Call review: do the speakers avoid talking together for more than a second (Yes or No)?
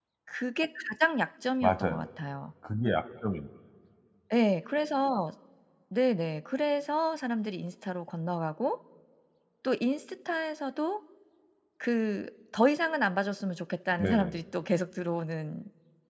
Yes